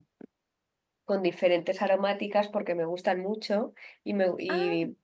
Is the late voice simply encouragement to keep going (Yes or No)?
Yes